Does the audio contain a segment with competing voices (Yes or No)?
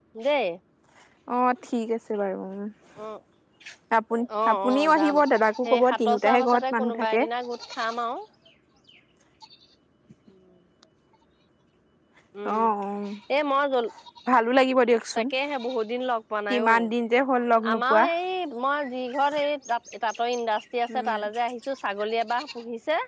Yes